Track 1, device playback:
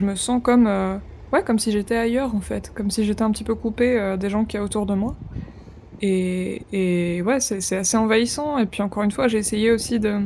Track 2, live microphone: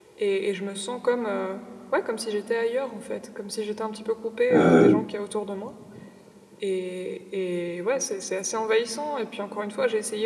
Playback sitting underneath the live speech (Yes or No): Yes